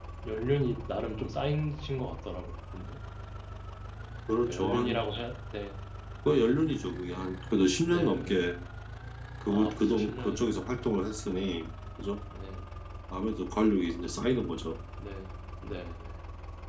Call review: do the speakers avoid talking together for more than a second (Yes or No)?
No